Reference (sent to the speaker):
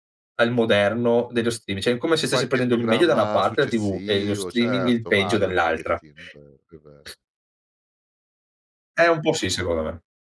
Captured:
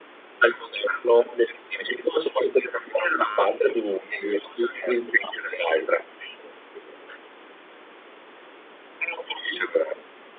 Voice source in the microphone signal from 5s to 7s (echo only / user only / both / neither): echo only